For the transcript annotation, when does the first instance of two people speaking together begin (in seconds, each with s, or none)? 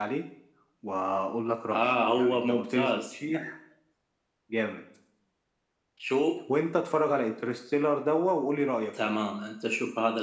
1.7 s